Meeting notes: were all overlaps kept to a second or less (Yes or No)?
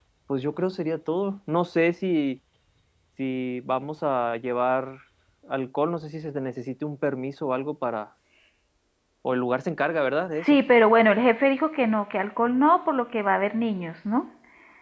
Yes